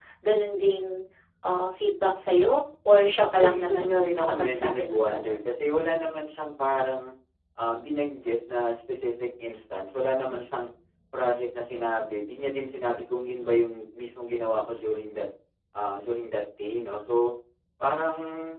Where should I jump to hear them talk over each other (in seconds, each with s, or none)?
3.4 s